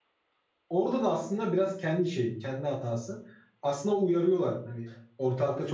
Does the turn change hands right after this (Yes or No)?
No